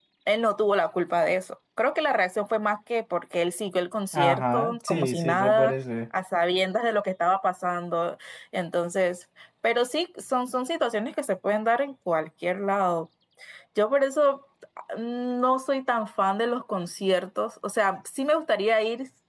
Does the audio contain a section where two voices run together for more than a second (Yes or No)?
Yes